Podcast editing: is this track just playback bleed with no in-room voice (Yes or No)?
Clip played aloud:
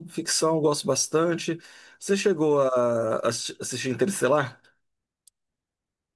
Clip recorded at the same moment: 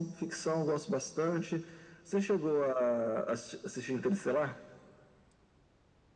Yes